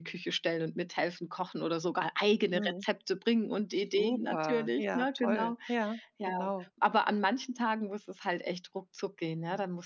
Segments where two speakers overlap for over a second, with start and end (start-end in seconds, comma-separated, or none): 4.0-5.5